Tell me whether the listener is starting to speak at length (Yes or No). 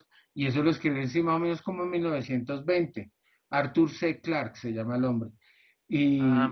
No